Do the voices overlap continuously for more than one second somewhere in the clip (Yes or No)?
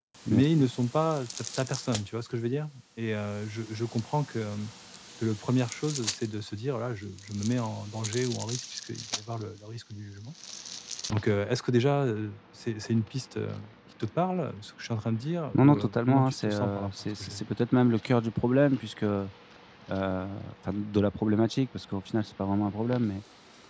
Yes